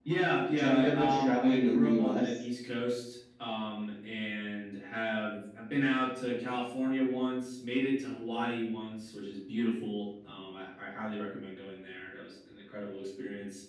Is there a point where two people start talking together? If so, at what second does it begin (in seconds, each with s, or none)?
0.6 s